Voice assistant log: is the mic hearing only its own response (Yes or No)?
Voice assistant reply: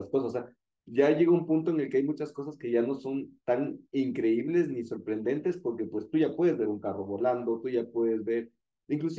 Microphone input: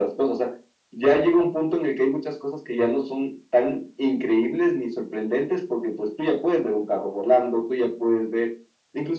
Yes